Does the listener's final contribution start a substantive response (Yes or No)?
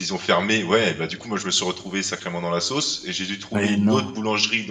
No